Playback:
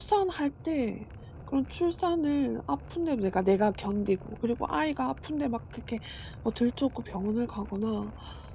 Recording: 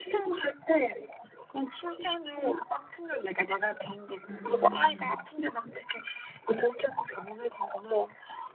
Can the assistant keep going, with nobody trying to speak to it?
No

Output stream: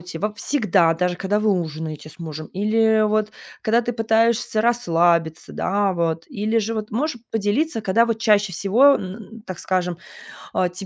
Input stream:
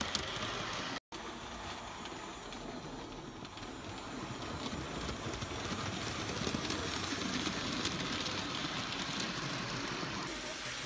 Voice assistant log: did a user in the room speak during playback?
No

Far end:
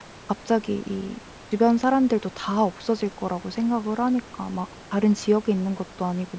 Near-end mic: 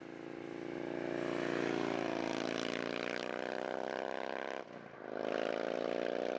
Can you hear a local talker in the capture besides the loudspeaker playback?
No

